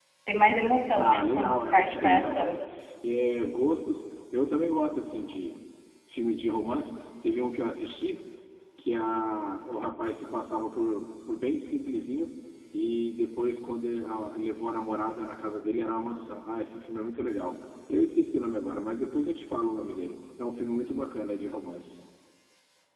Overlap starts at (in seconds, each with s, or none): 1.0 s